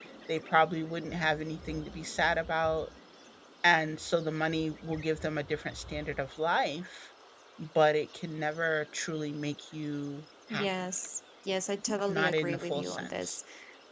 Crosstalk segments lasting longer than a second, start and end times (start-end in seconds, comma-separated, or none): 12.1-13.4